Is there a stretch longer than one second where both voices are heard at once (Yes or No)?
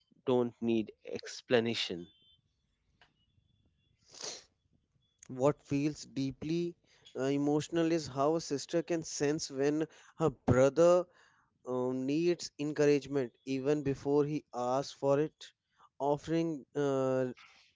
No